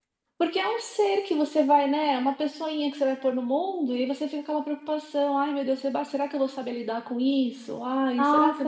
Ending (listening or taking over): taking over